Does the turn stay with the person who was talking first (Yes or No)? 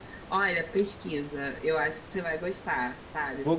Yes